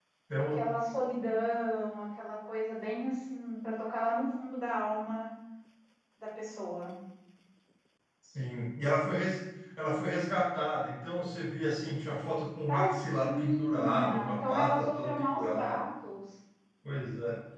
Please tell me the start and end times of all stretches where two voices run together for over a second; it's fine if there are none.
12.7-15.8

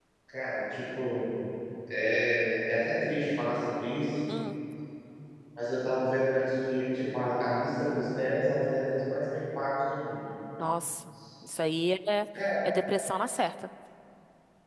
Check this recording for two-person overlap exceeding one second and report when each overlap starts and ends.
none

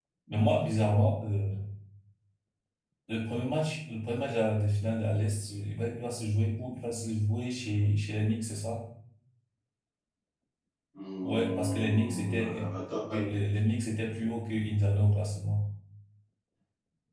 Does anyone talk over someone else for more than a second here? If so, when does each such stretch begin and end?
11.2-12.7

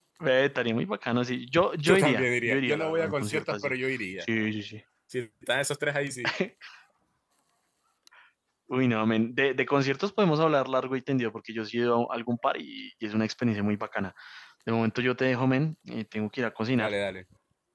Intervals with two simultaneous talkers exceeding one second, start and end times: 1.9-3.7

